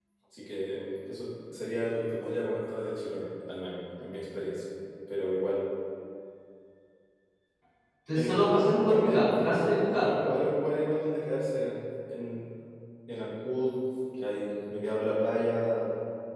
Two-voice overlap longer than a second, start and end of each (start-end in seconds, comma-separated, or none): 8.1-10.1